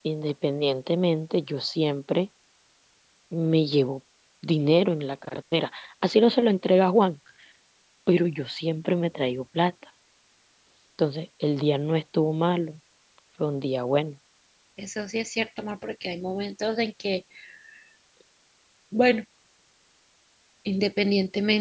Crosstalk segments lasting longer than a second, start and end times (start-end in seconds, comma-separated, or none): none